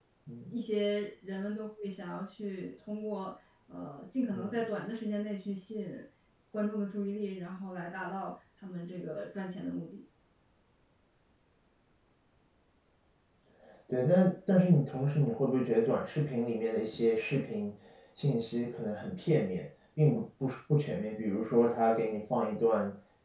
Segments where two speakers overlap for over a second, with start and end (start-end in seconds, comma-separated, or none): none